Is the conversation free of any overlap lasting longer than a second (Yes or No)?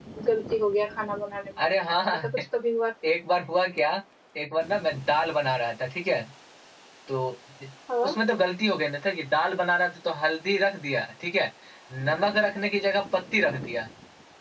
Yes